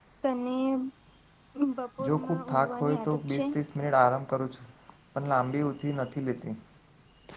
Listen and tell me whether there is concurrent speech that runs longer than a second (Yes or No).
Yes